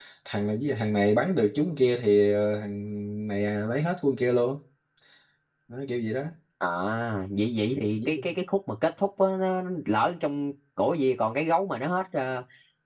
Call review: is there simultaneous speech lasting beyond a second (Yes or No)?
No